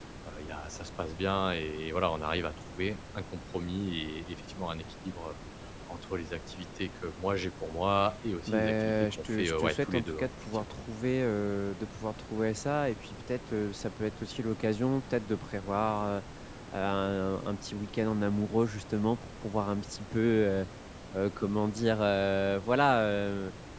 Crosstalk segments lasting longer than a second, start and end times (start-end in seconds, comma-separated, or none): 8.5-10.8